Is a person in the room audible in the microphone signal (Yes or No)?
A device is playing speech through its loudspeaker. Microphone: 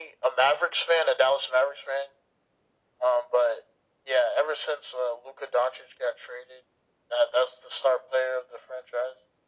No